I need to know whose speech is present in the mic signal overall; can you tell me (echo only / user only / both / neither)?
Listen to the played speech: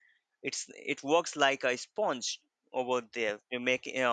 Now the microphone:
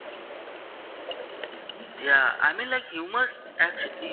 user only